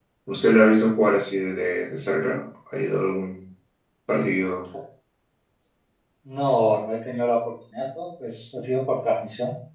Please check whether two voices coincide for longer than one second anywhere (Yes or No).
No